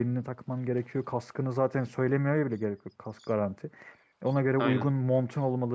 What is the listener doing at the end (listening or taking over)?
listening